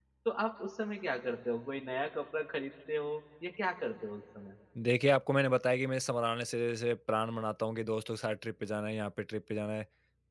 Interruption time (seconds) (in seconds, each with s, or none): none